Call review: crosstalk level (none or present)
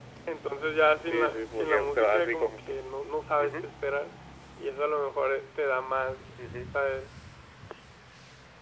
present